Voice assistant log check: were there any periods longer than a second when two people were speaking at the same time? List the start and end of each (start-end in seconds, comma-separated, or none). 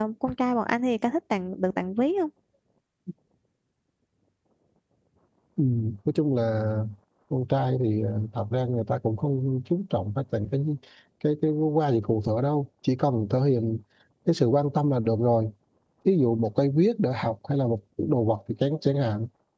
none